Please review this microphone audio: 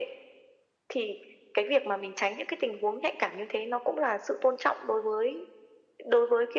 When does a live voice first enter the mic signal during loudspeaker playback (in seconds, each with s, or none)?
none